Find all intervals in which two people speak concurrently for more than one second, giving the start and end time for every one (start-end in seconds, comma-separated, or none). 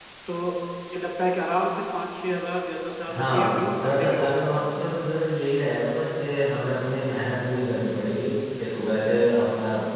3.1-4.7